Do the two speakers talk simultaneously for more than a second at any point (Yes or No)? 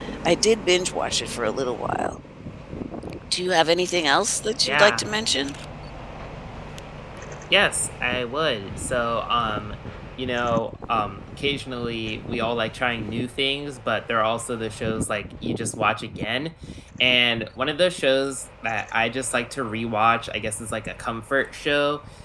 No